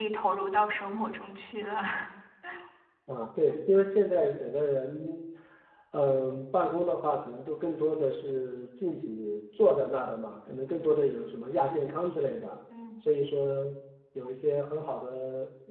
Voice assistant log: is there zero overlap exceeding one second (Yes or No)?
Yes